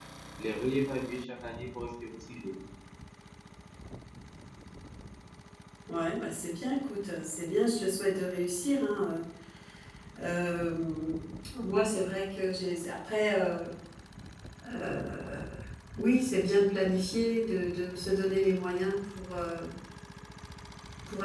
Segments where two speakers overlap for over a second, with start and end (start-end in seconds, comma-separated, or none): none